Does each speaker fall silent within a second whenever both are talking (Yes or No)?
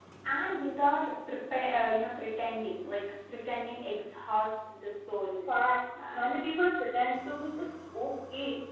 Yes